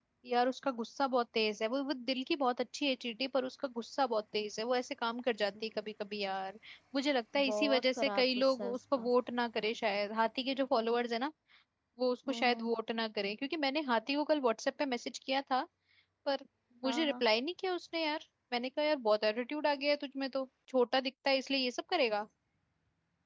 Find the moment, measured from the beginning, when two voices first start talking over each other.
7.5 s

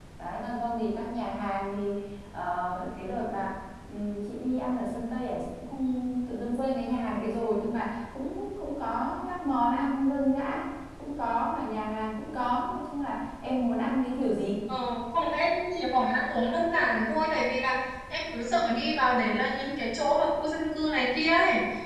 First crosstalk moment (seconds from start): none

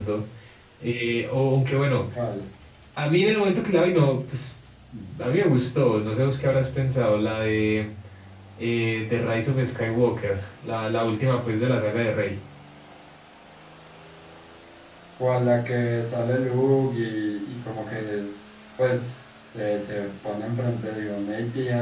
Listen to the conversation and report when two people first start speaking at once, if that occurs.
none

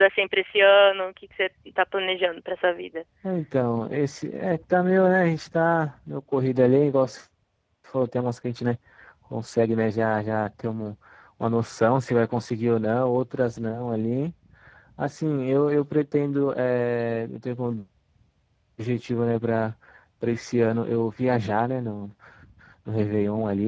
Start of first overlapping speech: none

